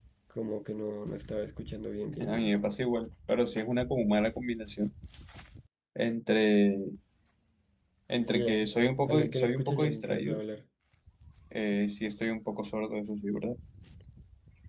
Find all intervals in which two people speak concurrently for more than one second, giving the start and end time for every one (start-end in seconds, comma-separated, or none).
9.1-10.4